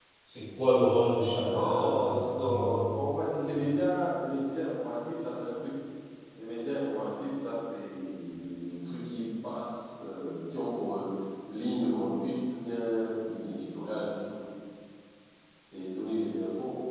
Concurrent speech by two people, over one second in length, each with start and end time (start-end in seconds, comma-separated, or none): 1.5-2.8